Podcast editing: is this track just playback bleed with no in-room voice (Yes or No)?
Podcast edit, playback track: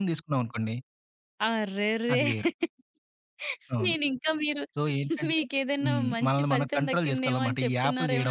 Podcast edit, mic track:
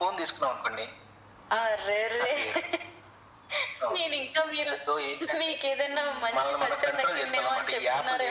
Yes